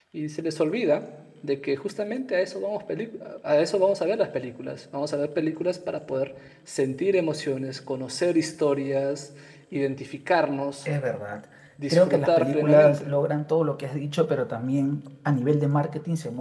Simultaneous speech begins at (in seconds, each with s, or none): 11.9 s